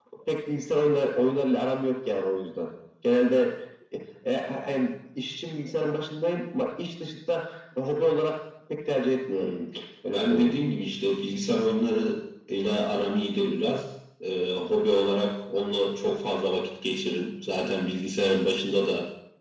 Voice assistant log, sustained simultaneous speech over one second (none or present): none